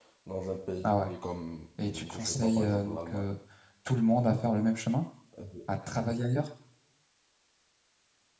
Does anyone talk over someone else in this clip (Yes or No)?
Yes